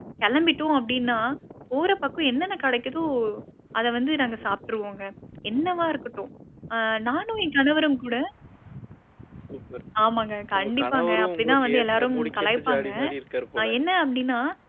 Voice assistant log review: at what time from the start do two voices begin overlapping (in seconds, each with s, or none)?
10.6 s